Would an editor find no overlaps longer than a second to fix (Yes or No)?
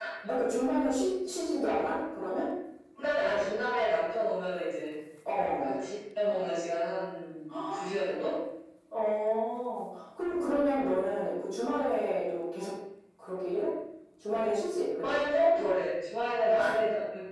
Yes